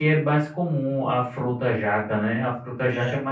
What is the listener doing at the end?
listening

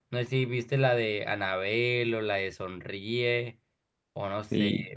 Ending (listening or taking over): taking over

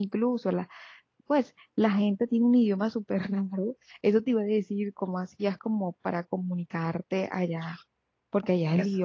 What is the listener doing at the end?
taking over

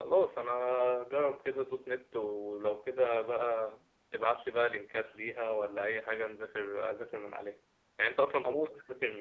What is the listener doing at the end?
listening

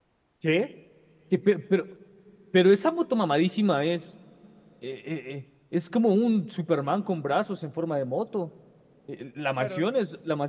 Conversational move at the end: listening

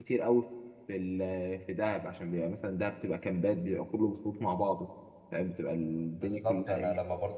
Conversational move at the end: taking over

